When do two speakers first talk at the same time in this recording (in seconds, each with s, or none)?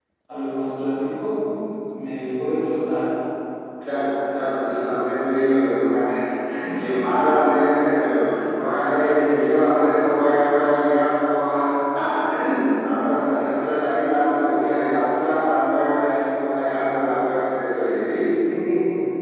none